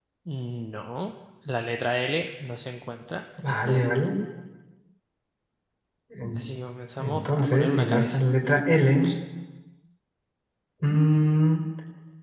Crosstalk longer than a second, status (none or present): present